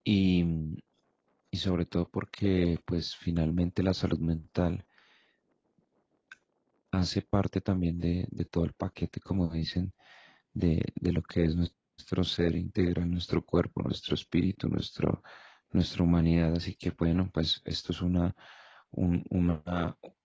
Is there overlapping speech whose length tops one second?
No

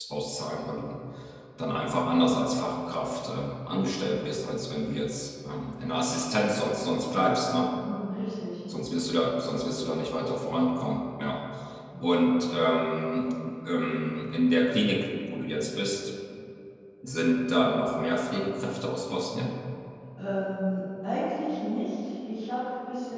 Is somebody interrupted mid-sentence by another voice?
No

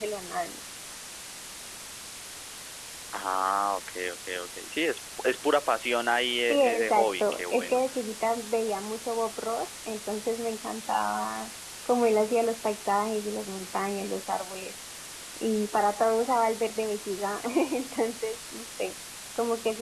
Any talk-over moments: Yes, from 6.5 s

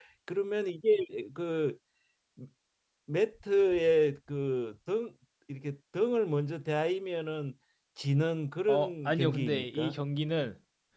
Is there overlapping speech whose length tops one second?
Yes, from 8.7 s

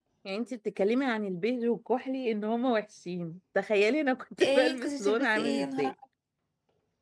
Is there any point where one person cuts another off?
Yes, from 4.4 s

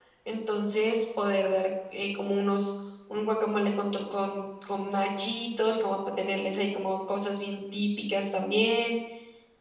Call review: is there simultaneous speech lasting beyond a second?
No

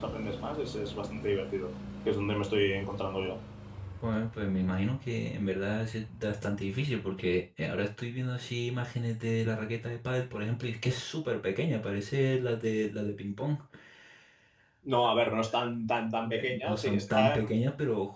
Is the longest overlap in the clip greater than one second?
Yes, from 16.2 s

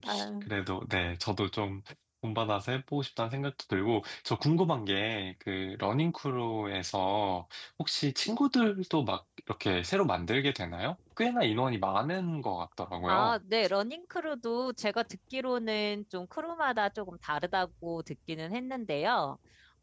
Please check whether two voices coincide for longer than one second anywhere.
No

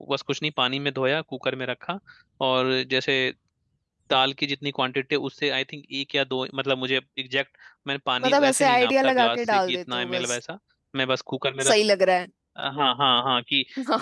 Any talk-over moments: Yes, from 8.2 s

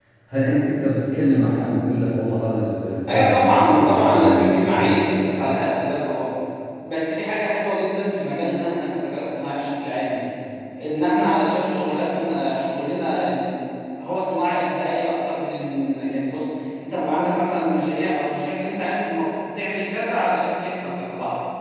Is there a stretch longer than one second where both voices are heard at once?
Yes, from 3.1 s

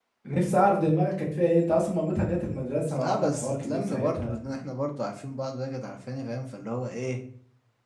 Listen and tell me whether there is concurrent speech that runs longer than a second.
Yes, from 2.9 s

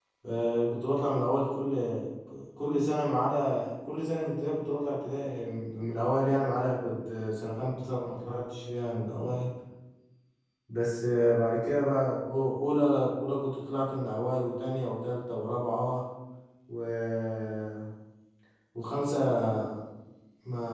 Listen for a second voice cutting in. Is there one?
No

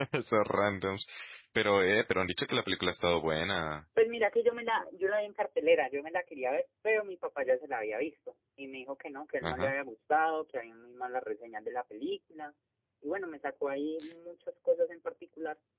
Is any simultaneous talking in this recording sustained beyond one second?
No

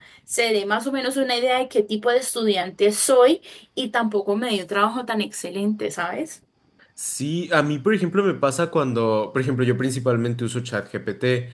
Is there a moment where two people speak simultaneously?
No

